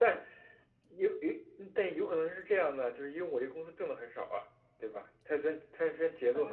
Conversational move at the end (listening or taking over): taking over